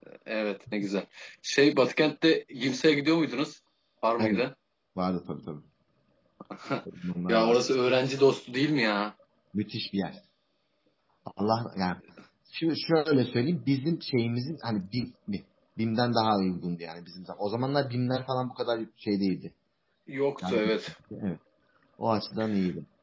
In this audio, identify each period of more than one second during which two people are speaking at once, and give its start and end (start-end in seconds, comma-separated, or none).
none